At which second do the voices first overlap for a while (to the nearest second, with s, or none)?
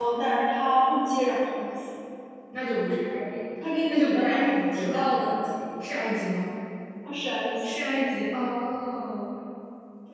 4 s